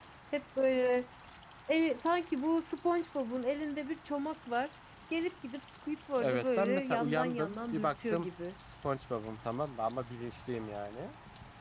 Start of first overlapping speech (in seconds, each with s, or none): 6.2 s